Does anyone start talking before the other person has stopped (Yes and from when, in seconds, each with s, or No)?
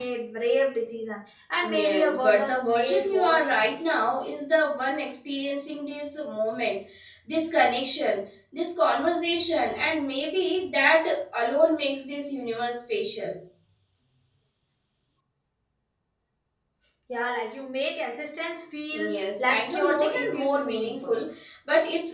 Yes, from 1.6 s